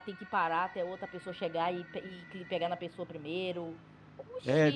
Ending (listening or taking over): taking over